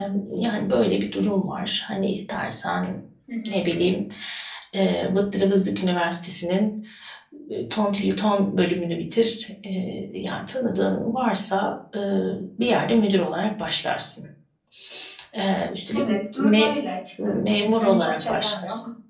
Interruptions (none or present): present